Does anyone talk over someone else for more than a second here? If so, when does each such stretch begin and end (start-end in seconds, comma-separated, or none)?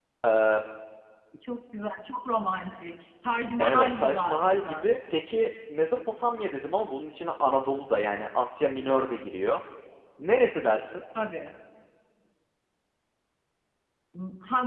3.6-4.9